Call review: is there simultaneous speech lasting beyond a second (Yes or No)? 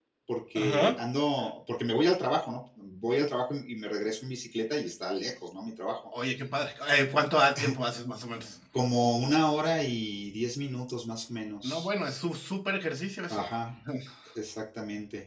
No